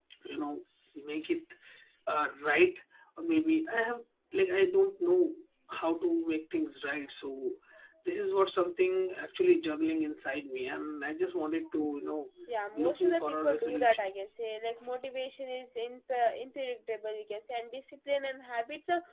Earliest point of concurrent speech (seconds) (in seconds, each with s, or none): 12.7 s